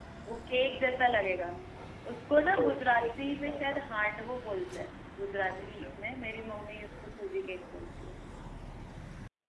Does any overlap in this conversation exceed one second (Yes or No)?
Yes